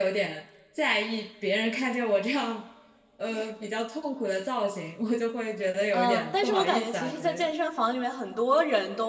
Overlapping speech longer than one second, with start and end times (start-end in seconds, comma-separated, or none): 5.9-7.5